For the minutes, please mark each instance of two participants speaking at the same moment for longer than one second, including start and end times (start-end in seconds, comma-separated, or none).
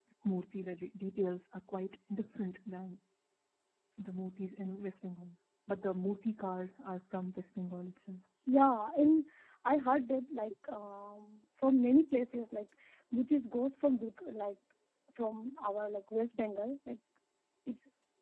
none